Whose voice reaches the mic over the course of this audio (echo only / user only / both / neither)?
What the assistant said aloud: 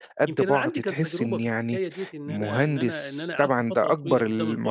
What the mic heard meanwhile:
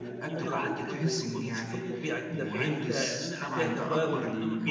both